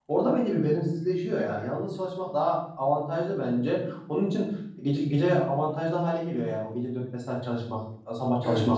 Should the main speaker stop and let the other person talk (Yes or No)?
Yes